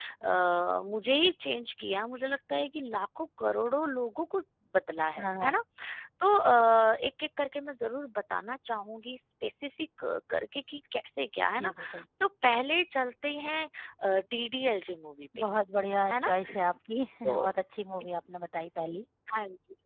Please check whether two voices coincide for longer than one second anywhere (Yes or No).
No